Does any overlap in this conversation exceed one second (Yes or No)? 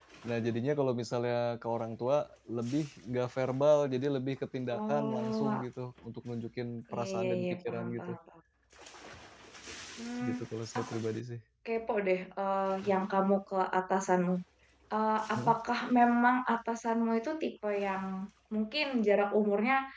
Yes